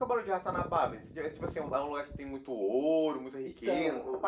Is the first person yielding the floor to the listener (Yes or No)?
Yes